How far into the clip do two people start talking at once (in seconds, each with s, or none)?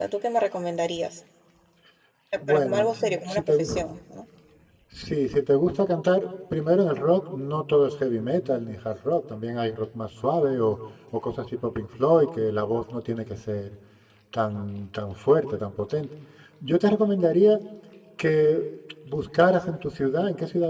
2.5 s